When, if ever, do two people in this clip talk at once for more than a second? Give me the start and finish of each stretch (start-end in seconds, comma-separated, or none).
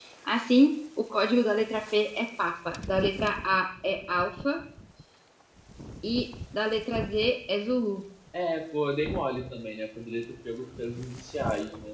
none